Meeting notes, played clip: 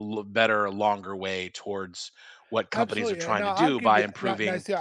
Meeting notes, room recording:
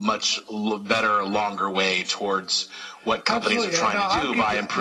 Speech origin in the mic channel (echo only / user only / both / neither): echo only